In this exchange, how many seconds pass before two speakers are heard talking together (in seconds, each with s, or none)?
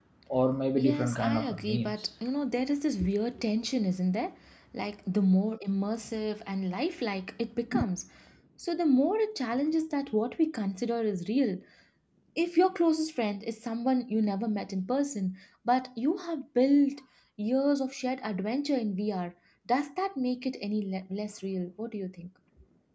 0.8 s